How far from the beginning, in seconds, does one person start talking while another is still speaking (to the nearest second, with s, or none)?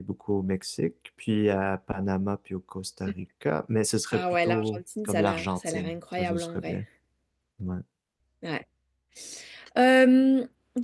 4 s